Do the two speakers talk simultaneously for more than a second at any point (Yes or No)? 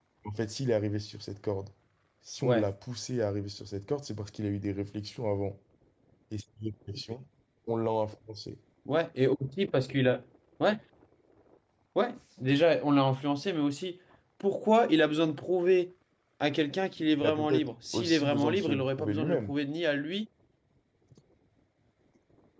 Yes